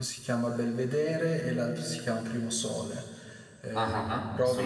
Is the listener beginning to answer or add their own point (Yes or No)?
Yes